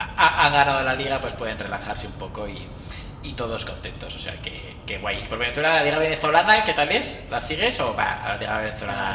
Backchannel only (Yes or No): No